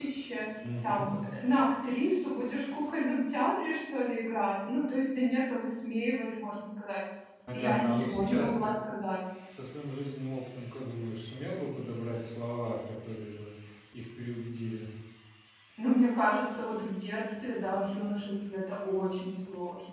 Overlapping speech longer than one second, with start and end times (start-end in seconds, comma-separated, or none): 7.5-8.7